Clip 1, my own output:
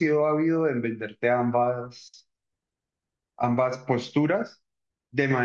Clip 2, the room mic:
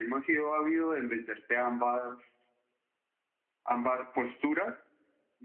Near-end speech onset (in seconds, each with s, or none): none